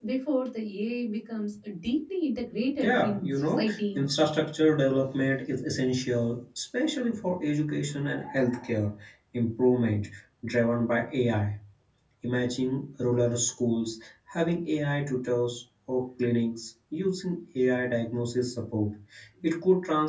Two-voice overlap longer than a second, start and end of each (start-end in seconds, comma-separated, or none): 2.8-4.0